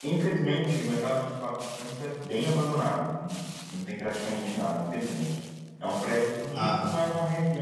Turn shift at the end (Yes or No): No